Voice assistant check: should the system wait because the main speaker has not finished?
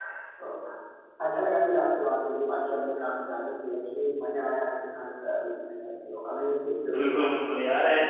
No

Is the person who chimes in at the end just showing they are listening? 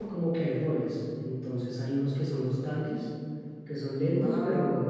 Yes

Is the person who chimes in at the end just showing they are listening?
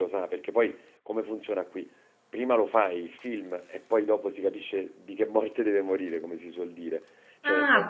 No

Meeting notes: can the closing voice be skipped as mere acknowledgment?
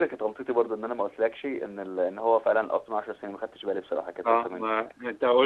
No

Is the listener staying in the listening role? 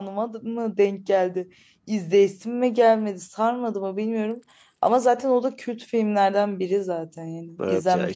No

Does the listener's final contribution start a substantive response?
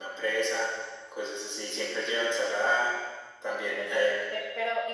Yes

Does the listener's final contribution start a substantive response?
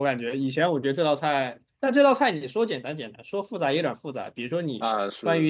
No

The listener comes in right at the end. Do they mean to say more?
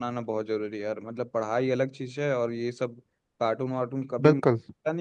No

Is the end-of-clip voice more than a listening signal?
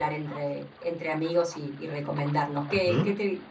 No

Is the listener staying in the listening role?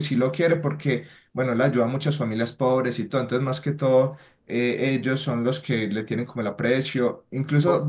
Yes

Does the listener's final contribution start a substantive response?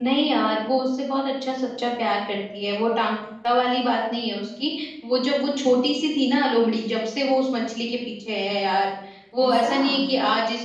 No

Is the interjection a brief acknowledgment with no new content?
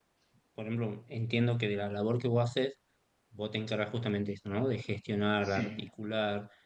Yes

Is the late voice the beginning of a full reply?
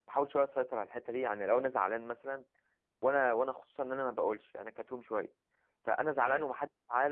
No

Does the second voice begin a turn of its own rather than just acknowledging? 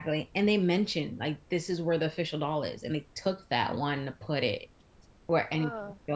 No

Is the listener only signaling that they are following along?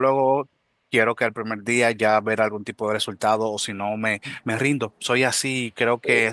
No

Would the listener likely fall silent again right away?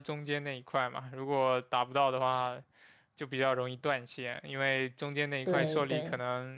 Yes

